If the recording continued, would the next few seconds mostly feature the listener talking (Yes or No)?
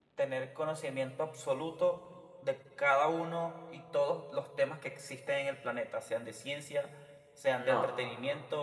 No